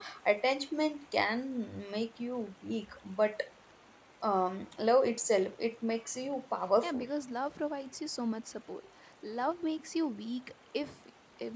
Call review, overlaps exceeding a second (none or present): none